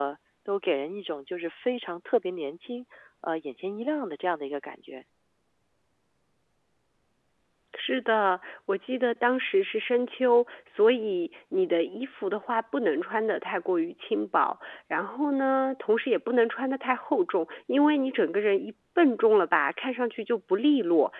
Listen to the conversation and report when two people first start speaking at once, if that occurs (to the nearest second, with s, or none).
none